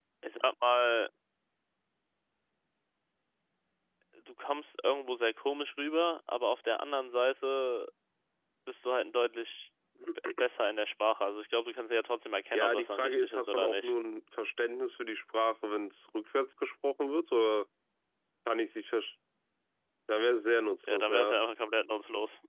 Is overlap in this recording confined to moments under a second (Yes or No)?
No